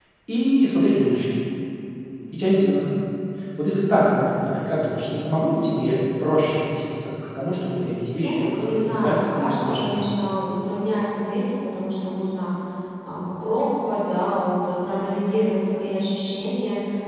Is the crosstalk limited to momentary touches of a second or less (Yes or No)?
No